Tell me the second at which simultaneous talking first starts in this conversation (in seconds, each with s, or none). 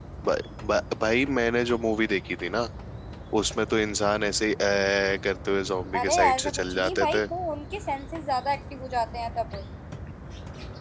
5.9 s